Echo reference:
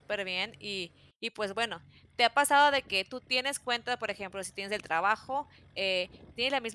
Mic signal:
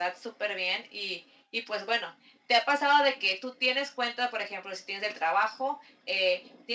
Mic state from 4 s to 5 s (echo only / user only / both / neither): echo only